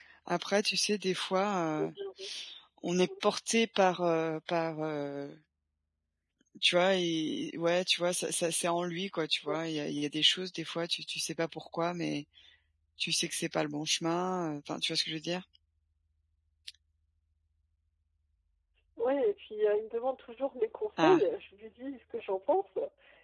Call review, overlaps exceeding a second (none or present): none